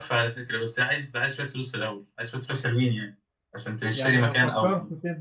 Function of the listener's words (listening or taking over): taking over